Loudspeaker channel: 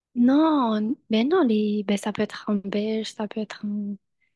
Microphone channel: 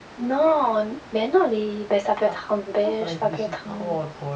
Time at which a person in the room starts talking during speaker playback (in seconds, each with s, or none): 2.2 s